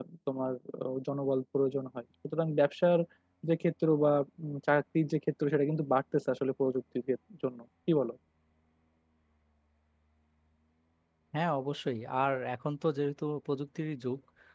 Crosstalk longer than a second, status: none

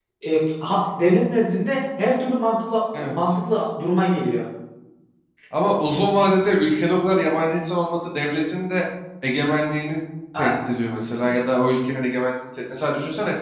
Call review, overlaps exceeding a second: none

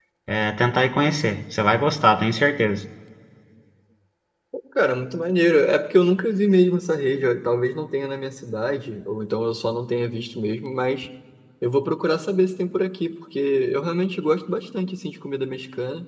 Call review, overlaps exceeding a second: none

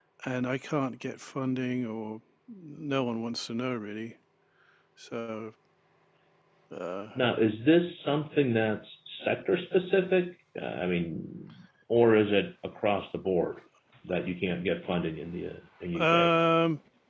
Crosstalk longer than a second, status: none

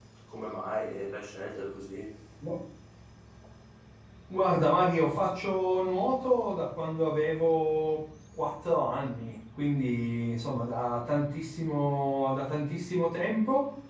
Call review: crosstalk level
none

